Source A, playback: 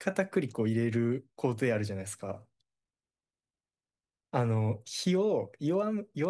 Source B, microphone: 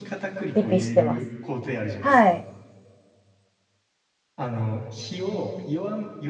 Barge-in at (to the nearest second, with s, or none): 1 s